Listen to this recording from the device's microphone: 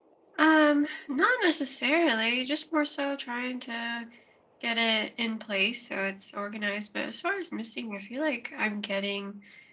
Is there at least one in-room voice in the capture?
Yes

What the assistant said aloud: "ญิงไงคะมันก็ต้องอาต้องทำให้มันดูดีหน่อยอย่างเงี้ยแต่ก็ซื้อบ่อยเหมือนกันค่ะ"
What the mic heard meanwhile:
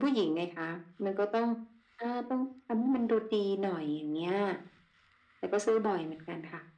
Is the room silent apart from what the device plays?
Yes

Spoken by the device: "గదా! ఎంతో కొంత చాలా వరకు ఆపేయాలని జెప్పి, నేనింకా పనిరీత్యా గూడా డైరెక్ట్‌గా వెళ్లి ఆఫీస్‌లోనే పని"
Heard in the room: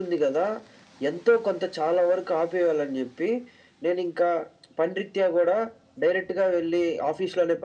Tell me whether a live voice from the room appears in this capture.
No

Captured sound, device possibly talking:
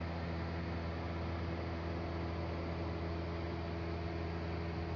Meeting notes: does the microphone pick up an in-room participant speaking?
No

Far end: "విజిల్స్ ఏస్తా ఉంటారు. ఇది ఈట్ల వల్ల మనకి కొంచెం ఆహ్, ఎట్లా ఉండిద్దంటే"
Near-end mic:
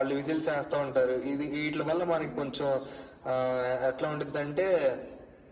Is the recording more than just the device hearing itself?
Yes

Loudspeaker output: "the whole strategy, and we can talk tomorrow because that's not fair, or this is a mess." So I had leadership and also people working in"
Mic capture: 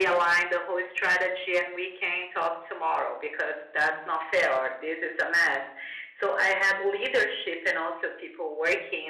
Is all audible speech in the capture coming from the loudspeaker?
Yes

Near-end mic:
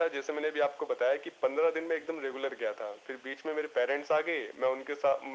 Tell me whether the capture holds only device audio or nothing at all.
Yes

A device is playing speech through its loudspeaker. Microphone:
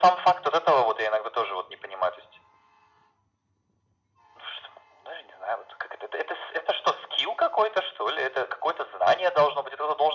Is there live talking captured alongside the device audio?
No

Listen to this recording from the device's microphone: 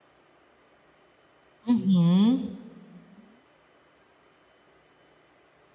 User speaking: Yes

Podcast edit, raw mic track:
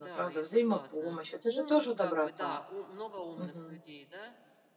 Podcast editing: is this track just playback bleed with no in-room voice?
No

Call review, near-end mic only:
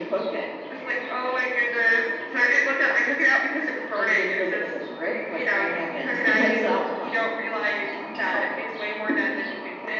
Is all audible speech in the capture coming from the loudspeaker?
Yes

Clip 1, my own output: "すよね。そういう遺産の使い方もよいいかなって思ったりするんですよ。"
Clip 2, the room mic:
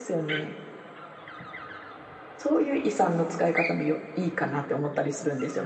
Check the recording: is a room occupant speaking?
No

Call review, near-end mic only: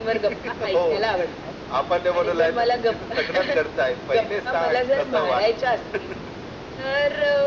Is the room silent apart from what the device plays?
Yes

